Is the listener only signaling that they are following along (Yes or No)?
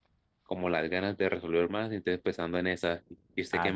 No